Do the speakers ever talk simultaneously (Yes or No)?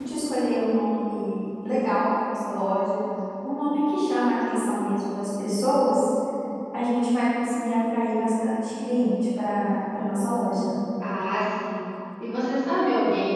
No